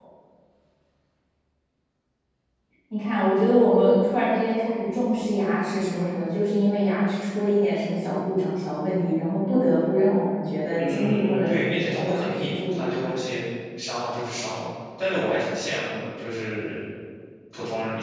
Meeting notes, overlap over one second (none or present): present